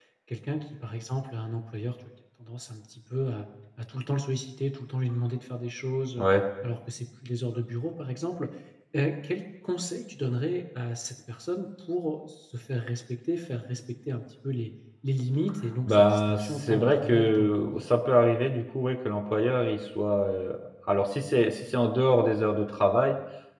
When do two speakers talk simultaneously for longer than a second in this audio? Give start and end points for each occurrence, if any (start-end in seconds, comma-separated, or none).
15.9-17.6